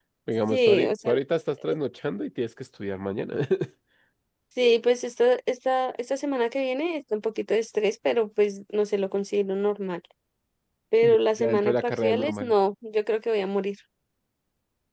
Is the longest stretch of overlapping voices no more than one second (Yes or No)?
No